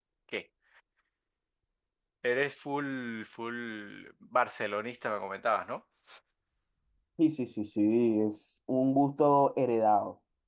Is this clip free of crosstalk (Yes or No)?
Yes